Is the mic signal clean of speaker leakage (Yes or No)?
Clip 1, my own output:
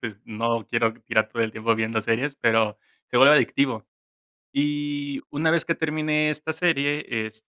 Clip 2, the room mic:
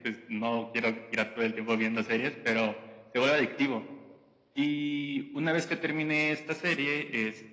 No